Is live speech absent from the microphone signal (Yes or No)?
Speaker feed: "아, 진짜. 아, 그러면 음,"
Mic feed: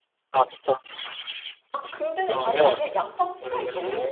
No